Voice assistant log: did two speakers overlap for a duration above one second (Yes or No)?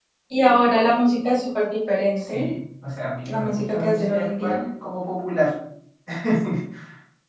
Yes